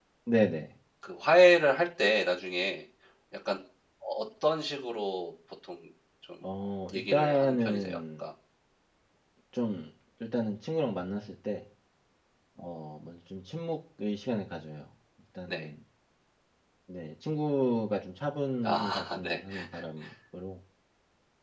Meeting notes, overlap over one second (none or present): present